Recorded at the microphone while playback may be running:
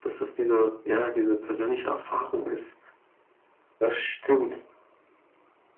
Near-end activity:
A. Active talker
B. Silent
B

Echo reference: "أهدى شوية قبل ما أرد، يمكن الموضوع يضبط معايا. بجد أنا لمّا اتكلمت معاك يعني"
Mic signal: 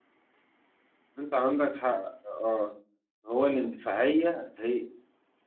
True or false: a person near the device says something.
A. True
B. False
A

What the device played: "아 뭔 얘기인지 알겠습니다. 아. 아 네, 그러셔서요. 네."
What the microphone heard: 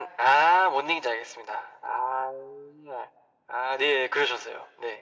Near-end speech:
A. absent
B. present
A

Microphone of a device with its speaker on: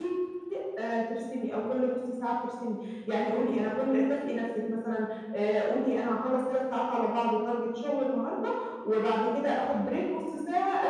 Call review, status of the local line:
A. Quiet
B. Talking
B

